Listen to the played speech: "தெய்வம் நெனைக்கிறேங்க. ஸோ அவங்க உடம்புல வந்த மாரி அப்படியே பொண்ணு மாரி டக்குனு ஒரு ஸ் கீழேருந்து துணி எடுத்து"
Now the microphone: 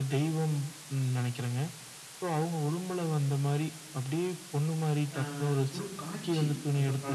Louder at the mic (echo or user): echo